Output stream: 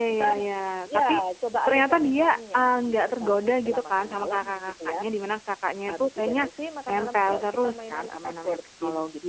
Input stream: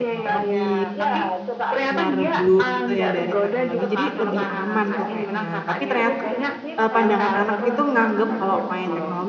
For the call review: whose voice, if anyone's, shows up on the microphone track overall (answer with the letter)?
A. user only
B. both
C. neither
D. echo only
B